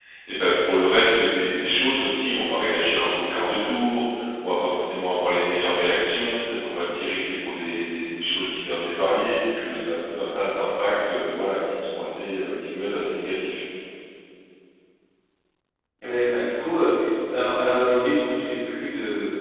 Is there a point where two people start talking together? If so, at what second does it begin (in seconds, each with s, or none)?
none